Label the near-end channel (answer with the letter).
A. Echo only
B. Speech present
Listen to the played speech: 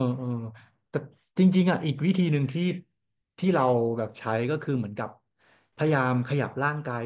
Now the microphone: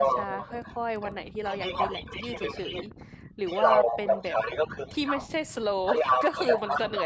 B